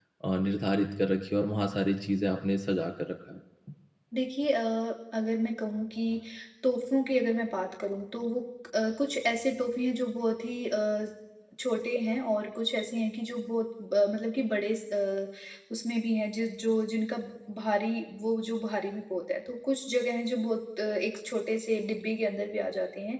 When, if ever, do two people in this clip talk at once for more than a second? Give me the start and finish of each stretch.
none

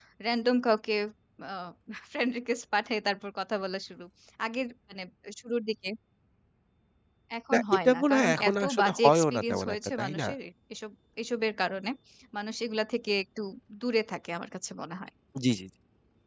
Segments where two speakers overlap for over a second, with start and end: 7.5-10.3

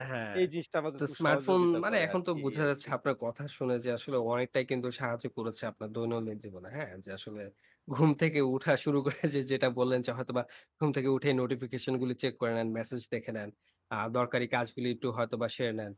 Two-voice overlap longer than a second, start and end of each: 1.0-2.7

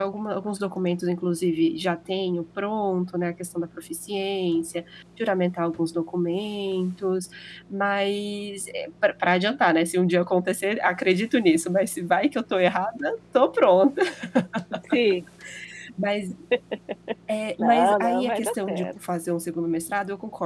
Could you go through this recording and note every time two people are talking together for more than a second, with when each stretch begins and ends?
17.6-18.9

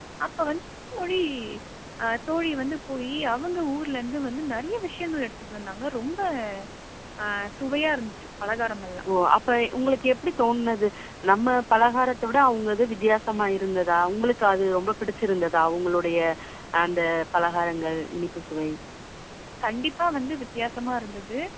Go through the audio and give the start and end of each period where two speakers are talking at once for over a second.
none

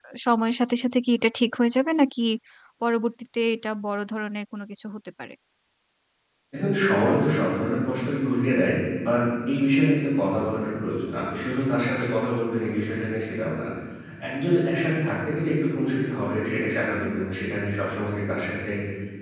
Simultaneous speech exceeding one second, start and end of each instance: none

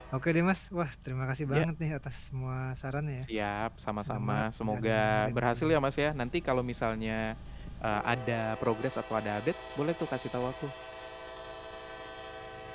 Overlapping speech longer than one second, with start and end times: 4.0-5.8

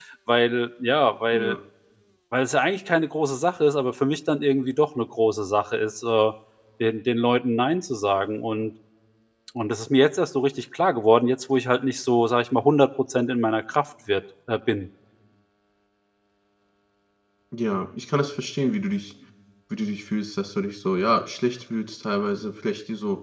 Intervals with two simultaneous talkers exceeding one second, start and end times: none

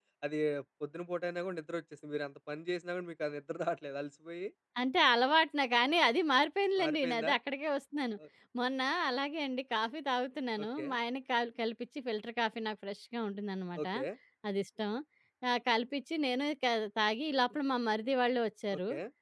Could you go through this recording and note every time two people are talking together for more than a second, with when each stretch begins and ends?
none

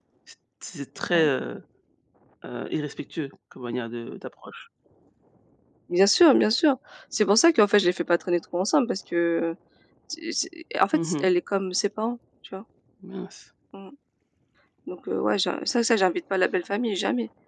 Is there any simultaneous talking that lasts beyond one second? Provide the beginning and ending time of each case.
none

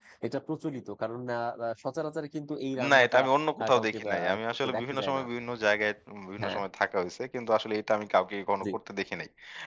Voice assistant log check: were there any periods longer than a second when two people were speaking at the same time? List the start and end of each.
3.6-5.2

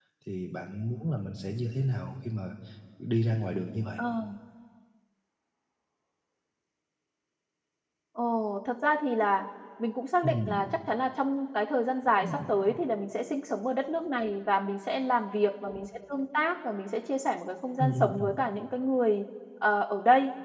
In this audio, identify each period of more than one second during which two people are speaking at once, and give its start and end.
none

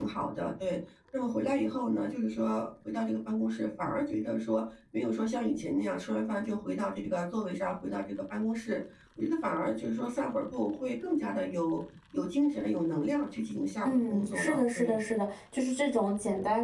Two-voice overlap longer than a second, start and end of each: 13.8-15.0

